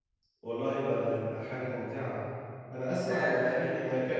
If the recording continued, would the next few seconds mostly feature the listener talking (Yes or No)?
No